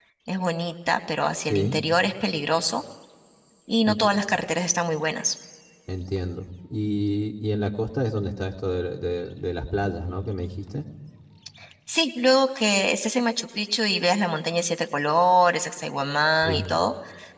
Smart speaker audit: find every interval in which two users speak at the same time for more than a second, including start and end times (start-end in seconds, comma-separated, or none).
none